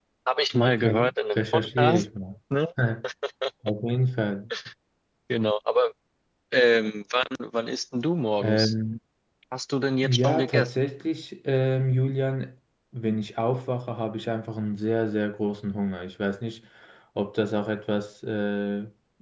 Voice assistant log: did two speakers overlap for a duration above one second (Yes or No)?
Yes